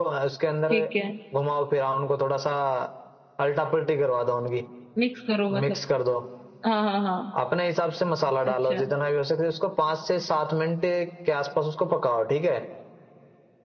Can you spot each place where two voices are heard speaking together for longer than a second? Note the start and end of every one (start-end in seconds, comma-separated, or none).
none